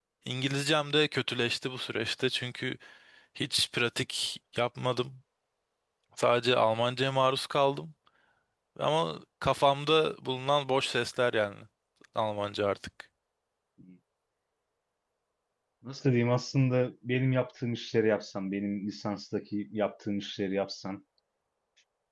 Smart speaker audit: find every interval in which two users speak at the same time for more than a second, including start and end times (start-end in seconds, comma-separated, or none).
none